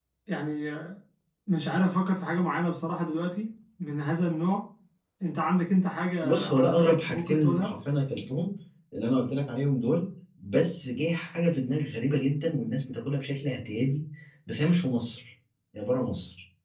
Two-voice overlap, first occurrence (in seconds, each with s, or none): 6.2 s